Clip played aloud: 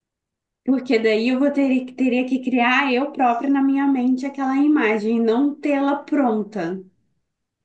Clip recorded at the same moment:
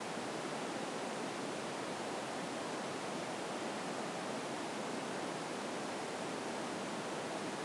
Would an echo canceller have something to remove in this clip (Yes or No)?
No